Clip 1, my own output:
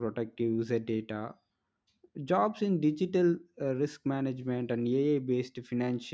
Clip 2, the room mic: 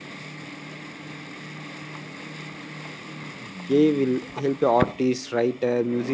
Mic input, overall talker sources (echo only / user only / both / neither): user only